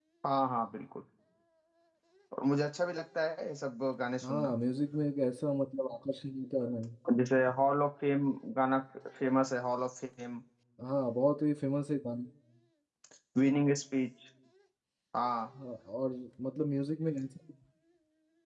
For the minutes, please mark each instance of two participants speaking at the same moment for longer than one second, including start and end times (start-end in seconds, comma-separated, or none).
none